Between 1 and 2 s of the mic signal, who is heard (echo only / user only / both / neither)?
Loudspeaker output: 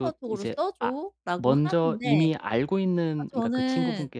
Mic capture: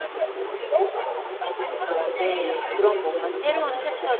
echo only